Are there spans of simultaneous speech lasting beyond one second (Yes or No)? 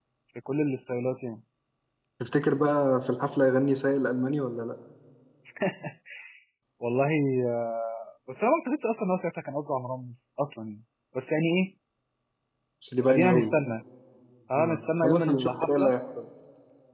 Yes